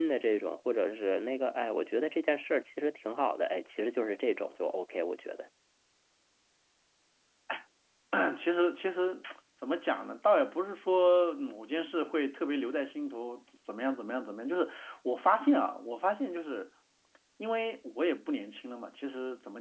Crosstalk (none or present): none